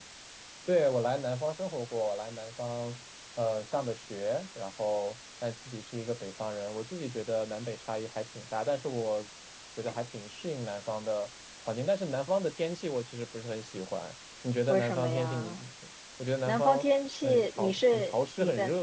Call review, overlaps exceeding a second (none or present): present